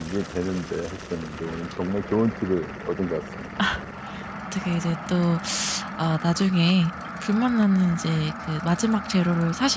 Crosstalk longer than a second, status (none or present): none